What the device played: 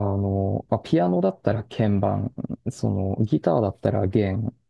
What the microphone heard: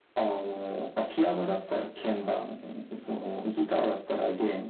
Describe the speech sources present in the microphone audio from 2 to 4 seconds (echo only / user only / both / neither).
echo only